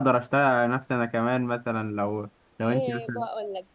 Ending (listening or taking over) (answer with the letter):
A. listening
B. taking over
B